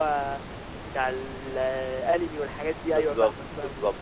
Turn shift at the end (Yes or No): Yes